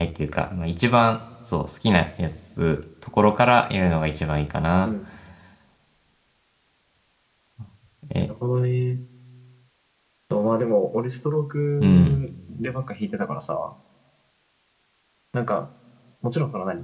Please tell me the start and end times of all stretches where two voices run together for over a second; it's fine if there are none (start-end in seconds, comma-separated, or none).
none